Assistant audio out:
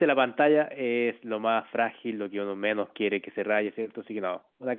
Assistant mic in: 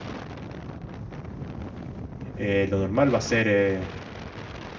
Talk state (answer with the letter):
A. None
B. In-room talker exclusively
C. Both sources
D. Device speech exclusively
B